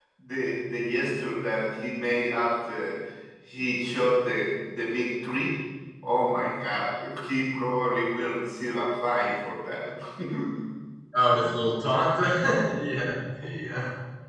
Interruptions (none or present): none